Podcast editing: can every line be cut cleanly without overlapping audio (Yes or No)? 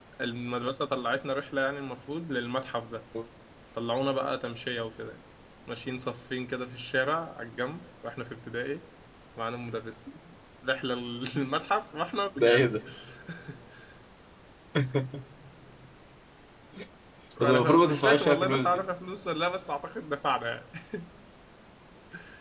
No